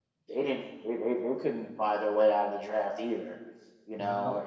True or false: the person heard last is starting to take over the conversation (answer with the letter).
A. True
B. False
B